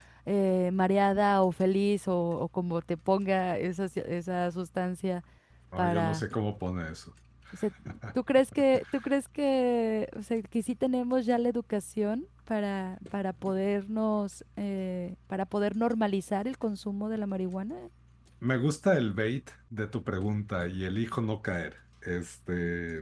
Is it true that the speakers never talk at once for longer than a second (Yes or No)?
Yes